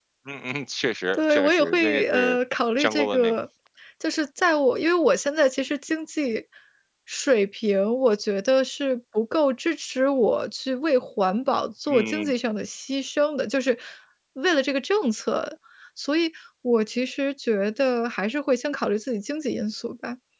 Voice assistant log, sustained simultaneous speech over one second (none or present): present